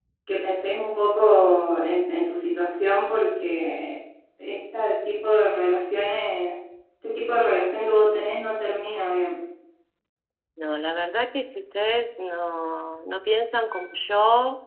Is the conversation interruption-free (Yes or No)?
Yes